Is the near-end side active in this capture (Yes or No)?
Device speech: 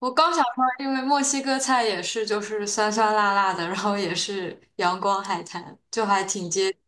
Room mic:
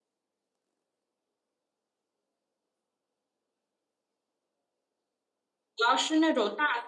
Yes